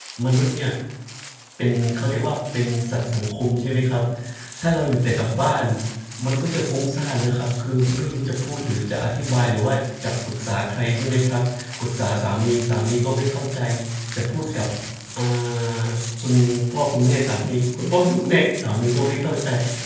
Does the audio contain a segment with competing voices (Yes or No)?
No